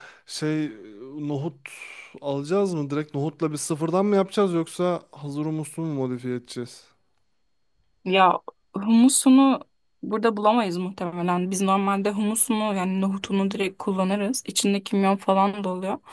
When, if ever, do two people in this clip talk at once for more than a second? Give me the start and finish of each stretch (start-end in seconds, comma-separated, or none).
none